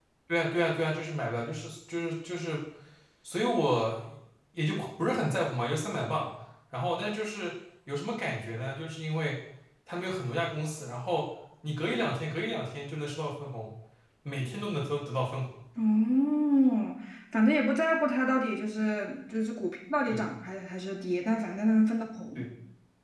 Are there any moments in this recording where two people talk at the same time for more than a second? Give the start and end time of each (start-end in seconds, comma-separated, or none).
none